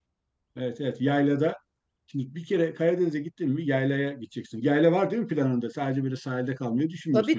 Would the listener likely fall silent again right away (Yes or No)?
No